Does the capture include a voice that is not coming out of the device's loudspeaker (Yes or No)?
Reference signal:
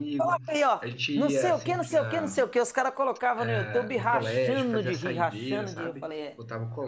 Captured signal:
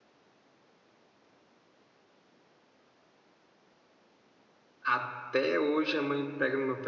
Yes